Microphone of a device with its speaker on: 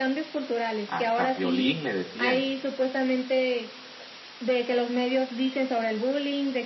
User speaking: Yes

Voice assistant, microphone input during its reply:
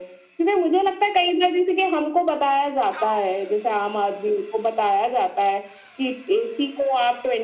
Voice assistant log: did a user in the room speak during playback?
No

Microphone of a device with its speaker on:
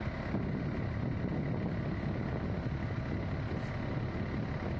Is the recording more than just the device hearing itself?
No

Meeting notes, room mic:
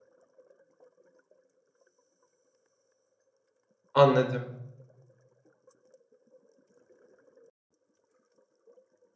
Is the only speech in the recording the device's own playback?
No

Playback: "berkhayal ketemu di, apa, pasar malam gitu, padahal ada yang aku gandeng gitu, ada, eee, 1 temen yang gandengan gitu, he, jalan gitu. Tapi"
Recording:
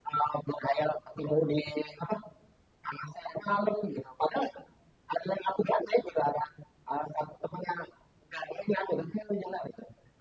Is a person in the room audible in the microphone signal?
No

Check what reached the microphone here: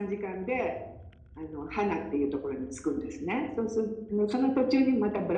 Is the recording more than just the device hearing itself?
No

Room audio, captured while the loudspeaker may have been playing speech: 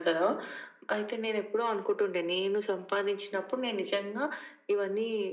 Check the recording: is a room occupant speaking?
No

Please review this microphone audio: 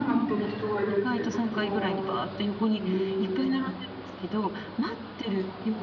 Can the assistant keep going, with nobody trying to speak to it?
No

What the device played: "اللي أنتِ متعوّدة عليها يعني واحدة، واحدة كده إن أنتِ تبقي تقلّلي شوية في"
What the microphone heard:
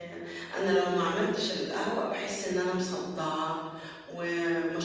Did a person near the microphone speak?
Yes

